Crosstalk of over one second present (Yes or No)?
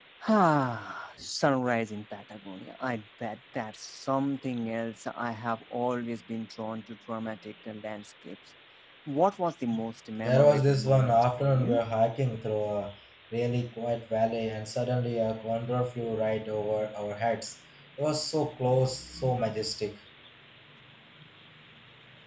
Yes